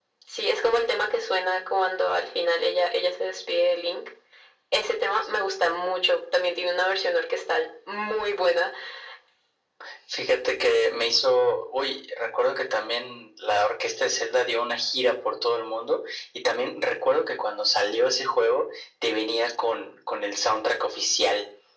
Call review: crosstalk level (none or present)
none